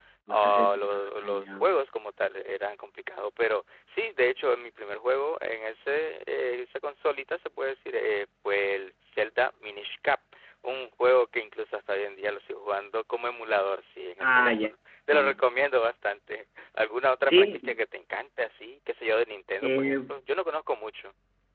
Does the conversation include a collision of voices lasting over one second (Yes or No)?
No